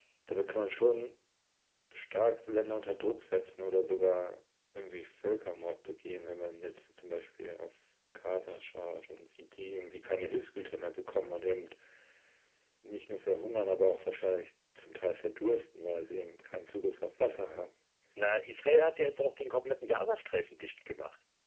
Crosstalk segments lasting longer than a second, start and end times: none

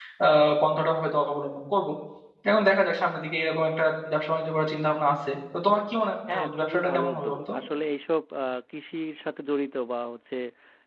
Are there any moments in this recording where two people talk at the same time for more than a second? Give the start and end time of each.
6.3-7.5

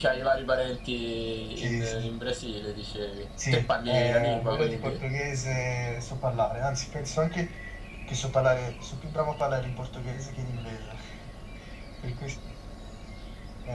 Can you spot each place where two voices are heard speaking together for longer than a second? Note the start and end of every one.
3.5-5.0

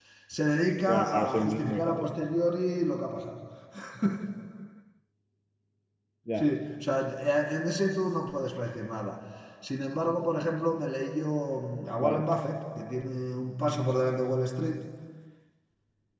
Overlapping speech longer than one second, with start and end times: 0.8-2.1

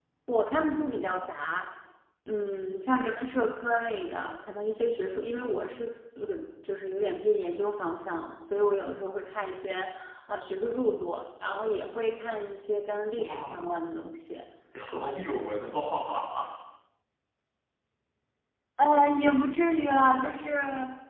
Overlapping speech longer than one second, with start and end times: none

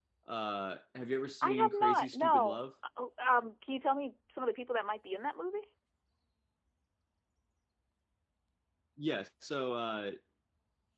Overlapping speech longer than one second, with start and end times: 1.4-2.6

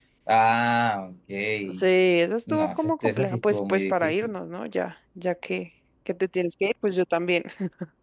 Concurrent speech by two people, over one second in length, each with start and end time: 2.5-4.3

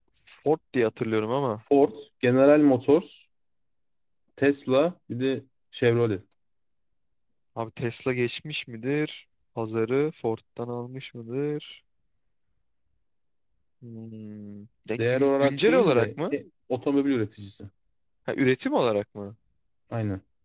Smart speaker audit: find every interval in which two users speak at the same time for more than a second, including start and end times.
15.0-16.3

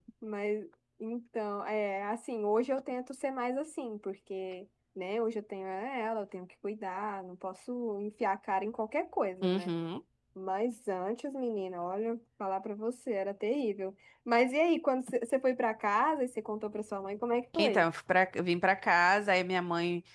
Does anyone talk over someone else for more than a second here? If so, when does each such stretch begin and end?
none

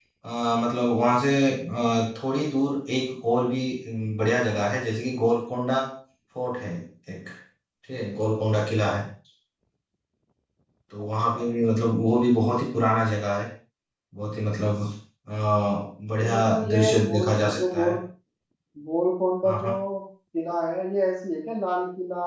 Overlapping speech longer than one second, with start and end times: 16.2-18.0

